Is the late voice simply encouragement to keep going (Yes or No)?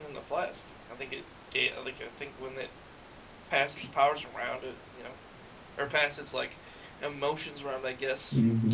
No